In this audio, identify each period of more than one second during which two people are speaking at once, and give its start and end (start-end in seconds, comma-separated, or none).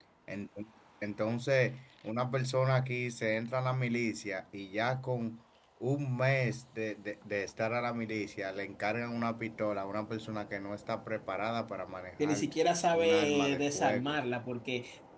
12.9-14.2